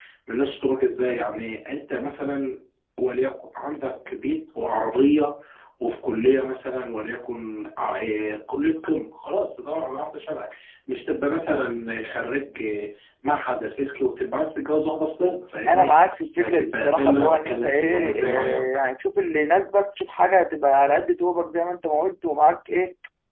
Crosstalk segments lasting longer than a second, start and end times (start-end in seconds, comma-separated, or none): 16.4-18.6